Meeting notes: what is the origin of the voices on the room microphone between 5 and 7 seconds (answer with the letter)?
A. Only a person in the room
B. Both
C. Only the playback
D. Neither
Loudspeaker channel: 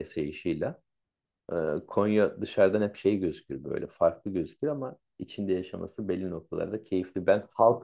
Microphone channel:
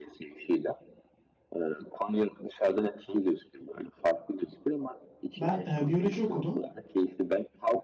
B